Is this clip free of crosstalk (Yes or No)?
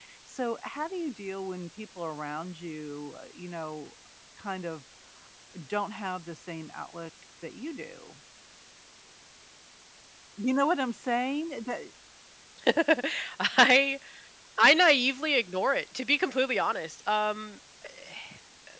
Yes